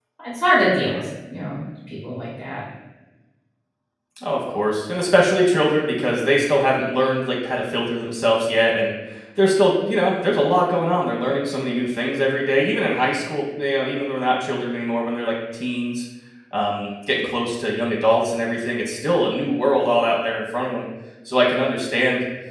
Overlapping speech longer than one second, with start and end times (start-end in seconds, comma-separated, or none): none